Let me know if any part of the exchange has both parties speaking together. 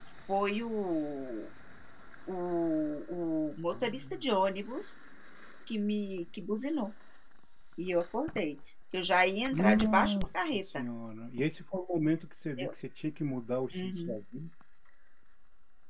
Yes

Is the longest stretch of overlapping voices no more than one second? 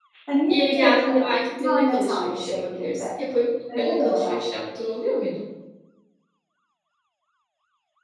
No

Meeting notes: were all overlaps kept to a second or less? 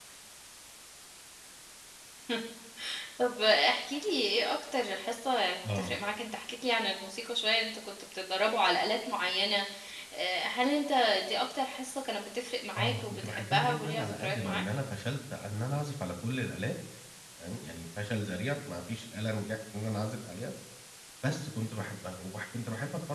No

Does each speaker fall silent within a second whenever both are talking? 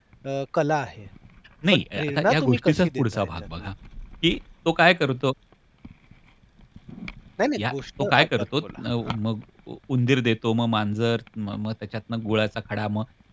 No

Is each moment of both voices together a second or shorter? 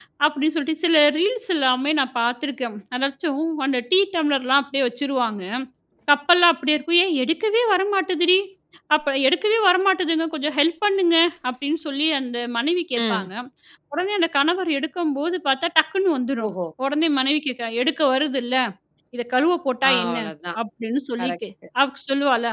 Yes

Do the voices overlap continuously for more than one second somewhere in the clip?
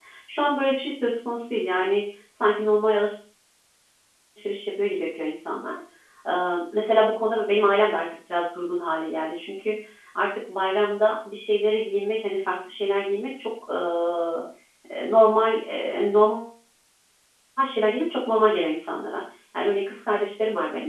No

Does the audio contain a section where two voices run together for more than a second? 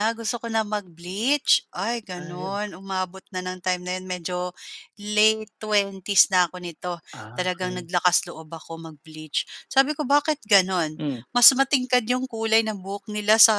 No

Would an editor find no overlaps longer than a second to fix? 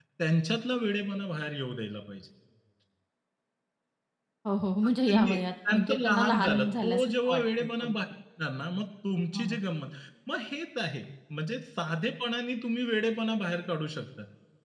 No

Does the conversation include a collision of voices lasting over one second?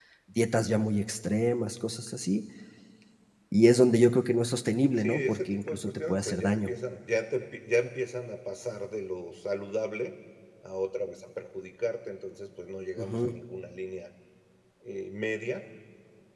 Yes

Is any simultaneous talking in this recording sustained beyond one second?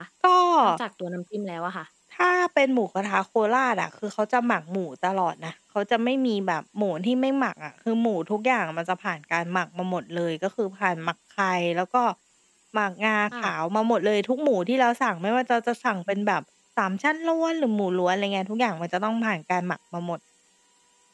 No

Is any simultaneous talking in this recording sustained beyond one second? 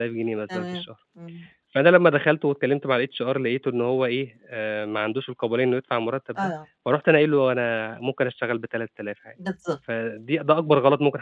No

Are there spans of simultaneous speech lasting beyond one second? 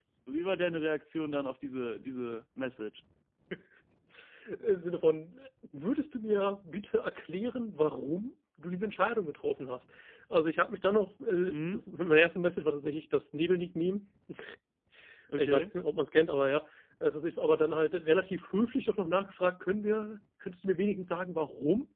No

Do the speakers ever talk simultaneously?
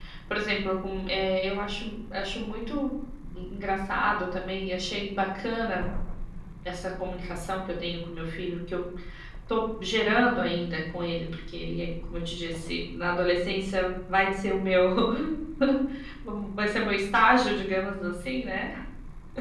No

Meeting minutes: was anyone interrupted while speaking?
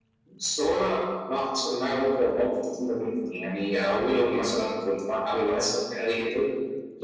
No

